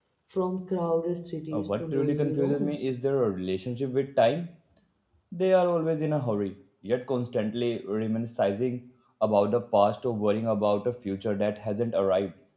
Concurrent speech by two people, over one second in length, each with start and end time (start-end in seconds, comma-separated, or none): 1.5-2.8